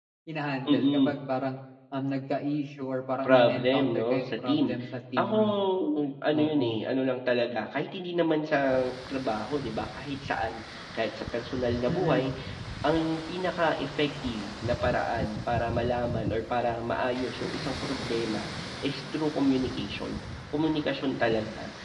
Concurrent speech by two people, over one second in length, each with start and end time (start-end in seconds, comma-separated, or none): 3.2-4.7